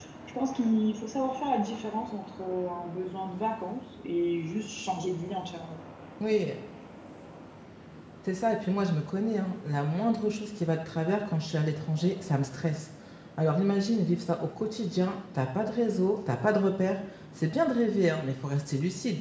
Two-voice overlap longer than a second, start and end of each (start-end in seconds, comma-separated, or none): none